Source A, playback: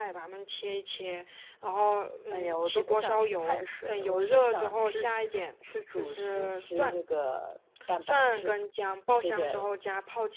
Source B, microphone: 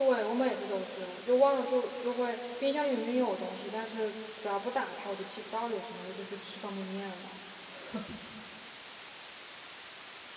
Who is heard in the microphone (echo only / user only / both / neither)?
user only